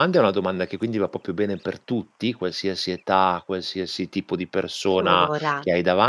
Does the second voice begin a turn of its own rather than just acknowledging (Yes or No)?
No